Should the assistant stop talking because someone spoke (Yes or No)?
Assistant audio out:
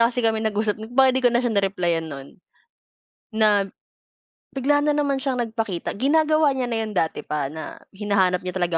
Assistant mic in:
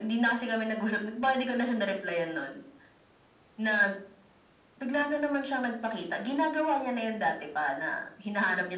No